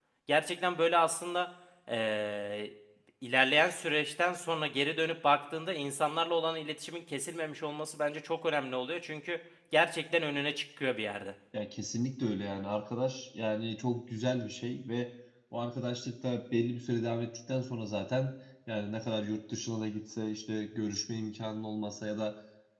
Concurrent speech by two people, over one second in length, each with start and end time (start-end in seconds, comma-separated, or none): none